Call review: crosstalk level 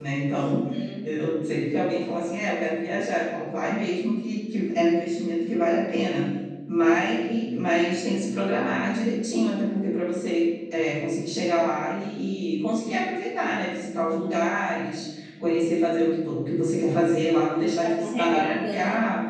present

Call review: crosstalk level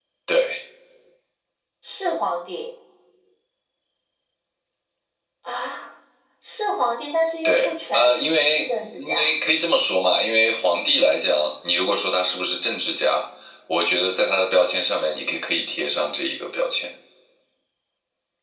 present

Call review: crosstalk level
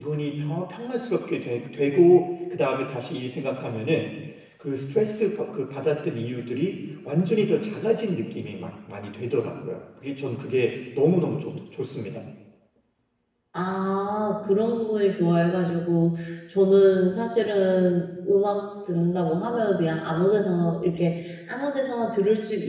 none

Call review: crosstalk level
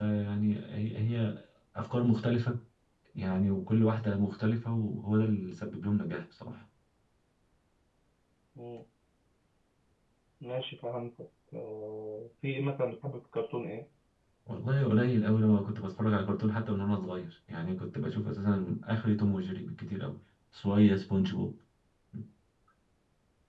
none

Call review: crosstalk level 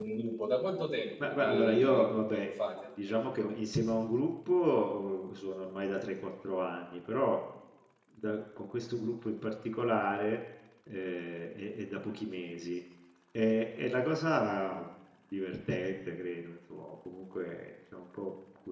present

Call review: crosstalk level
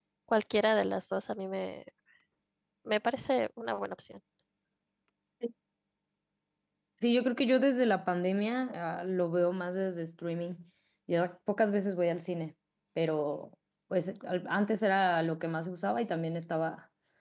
none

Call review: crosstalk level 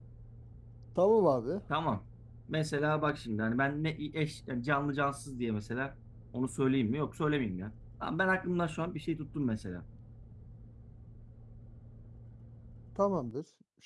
none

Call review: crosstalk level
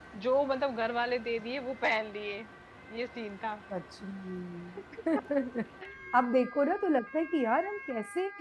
none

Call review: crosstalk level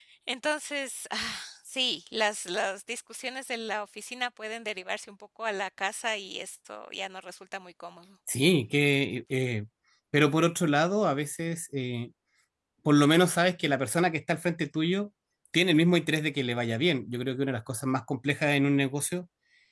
none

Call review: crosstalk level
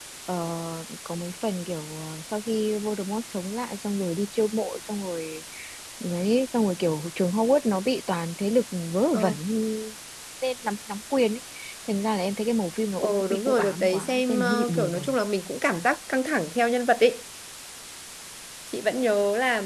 present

